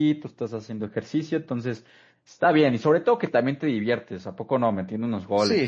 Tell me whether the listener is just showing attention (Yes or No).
No